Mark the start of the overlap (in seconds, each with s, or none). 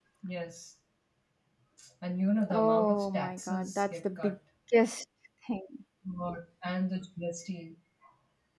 2.5 s